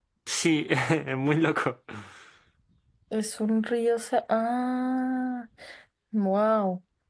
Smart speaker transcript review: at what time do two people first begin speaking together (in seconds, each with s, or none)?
none